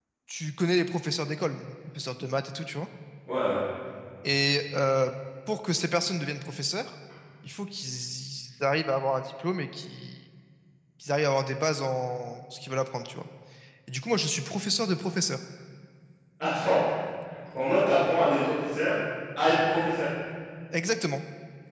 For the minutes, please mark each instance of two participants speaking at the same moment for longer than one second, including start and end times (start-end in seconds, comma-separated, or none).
none